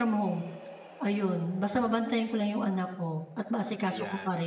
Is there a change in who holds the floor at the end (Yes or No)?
Yes